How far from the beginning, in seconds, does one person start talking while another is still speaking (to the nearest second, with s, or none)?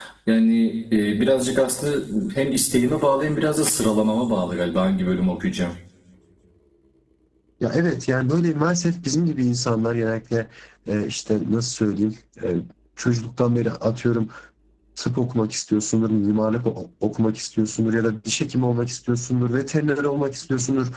none